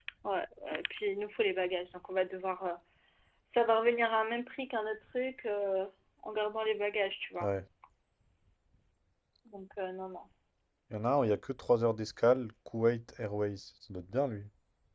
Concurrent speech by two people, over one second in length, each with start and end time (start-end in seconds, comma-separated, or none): none